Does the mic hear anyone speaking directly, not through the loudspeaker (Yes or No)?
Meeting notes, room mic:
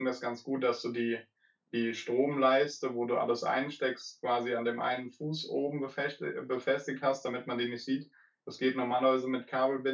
Yes